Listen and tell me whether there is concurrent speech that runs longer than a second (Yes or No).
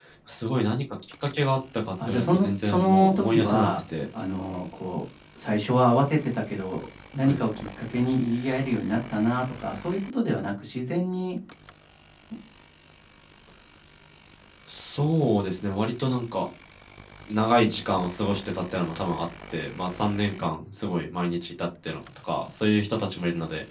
Yes